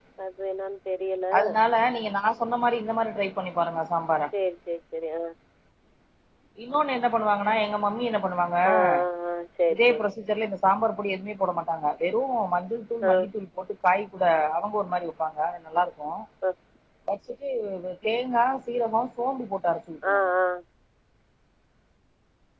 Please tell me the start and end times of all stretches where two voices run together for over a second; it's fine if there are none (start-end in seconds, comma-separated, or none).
none